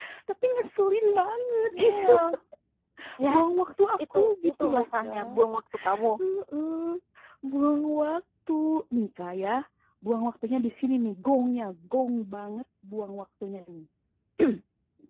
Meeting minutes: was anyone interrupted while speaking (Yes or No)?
Yes